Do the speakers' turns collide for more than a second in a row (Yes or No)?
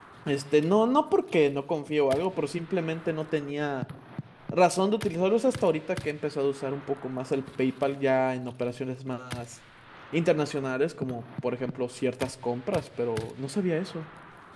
No